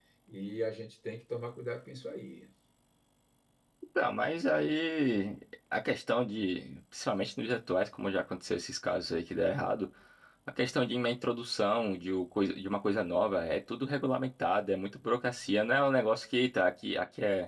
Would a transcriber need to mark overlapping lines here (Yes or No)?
No